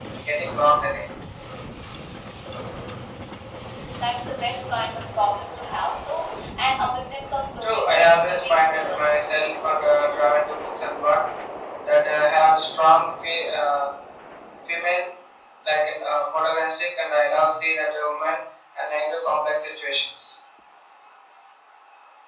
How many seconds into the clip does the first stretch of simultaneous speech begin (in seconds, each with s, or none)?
7.6 s